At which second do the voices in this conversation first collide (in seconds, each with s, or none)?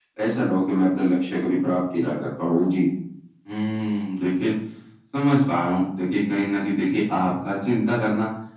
none